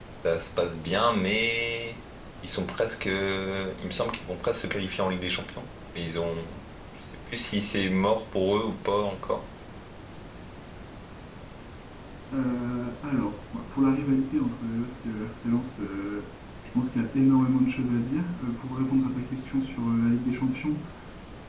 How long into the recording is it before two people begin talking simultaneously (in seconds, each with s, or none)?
none